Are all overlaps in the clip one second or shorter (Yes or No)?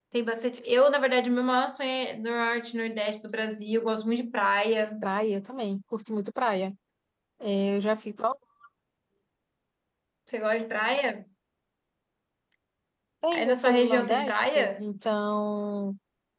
No